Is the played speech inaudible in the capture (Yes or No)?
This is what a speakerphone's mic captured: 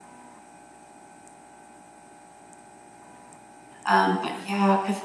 Yes